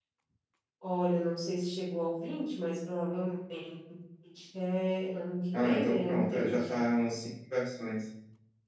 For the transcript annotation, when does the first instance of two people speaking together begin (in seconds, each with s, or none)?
5.5 s